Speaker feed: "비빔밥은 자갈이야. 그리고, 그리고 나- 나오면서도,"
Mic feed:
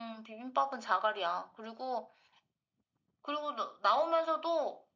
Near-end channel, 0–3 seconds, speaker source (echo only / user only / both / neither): echo only